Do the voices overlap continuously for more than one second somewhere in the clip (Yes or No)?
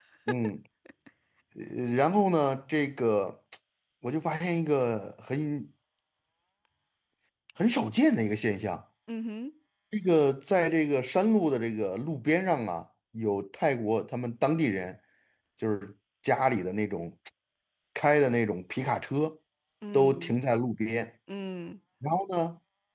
No